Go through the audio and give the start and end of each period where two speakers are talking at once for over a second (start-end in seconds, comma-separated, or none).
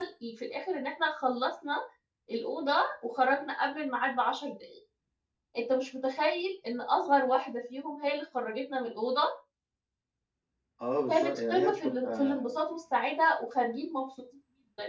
11.1-12.5